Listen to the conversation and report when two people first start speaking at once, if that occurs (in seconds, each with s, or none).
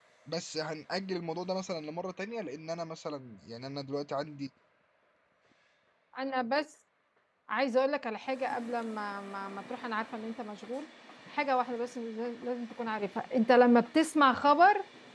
none